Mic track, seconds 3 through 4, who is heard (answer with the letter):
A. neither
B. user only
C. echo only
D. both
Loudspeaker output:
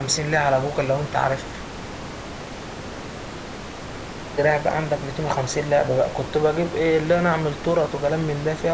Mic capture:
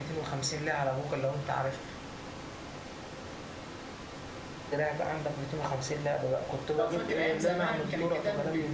A